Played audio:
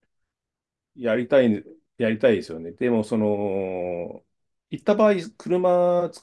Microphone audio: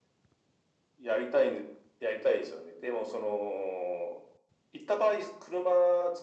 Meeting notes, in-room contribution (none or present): none